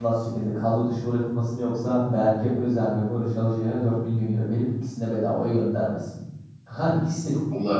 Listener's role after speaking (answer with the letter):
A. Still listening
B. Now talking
B